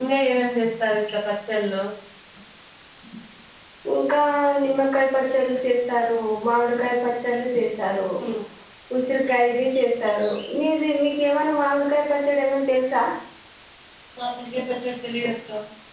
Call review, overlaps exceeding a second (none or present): none